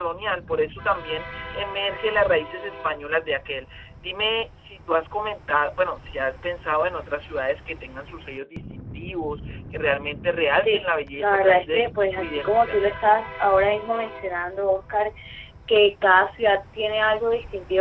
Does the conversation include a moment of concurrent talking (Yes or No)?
Yes